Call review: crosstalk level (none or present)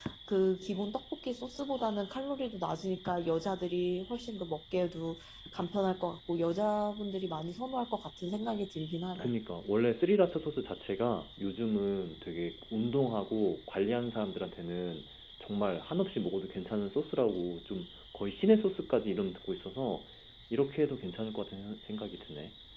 none